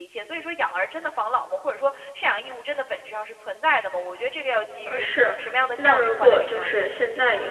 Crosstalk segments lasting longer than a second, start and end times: 5.8-7.0

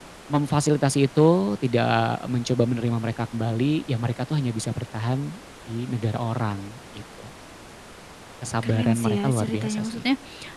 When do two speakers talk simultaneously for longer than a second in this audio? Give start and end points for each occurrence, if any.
8.6-10.0

